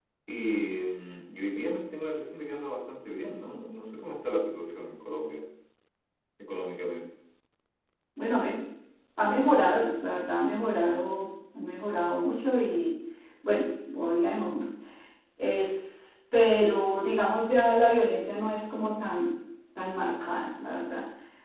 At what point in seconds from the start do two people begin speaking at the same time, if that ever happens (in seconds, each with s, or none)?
none